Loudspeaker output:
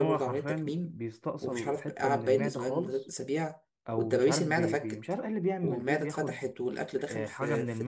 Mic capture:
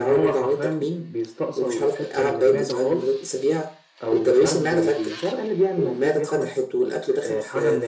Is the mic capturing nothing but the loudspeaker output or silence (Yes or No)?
Yes